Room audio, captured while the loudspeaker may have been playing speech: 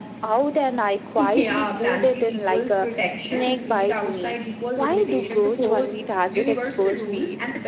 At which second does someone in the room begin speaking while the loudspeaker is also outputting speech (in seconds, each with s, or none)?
1.2 s